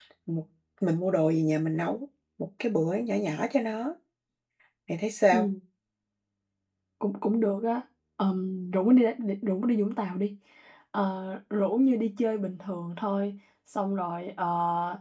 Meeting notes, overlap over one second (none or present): none